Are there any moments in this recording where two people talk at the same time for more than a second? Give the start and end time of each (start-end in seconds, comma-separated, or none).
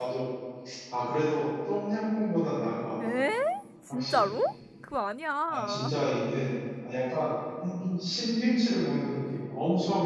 none